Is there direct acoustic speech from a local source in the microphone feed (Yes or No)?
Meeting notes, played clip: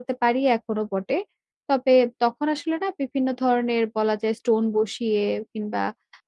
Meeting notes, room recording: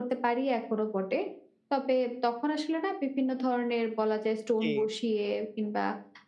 Yes